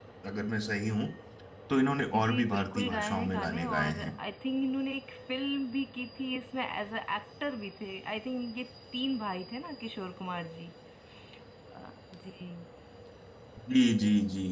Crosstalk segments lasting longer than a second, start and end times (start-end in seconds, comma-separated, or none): 2.2-4.1